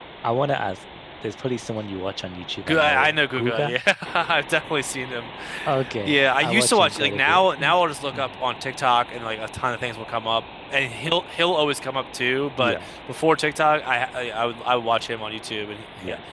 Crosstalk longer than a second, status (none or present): present